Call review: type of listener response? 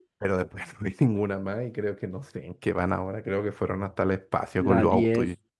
taking over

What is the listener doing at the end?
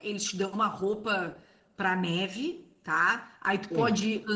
listening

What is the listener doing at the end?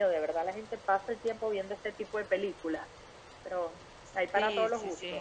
taking over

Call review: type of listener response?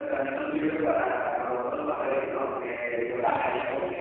listening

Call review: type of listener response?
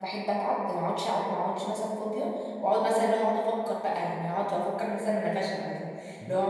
taking over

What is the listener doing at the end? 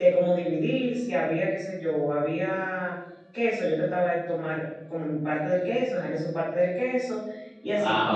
listening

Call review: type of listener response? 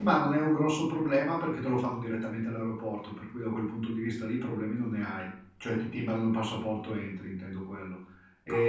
listening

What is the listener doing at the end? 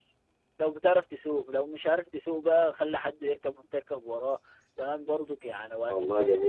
listening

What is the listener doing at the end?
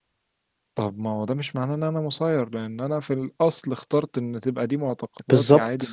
listening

